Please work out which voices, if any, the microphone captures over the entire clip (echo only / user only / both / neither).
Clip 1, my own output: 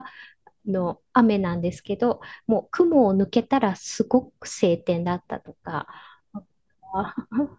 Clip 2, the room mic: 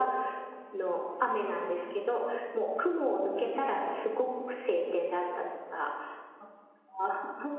echo only